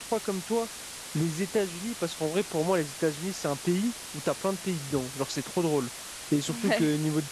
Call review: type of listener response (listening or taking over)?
listening